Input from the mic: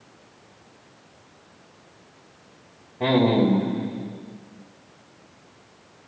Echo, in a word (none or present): none